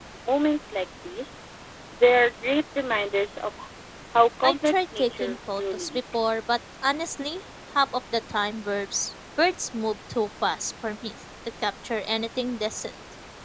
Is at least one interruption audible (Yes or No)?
Yes